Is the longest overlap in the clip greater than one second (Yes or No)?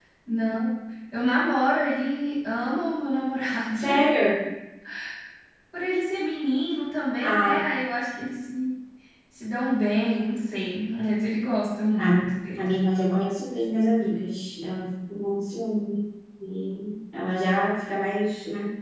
No